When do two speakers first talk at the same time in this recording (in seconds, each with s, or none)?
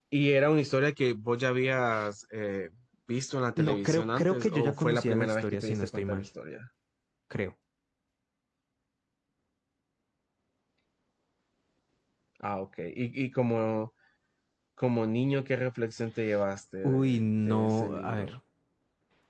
3.6 s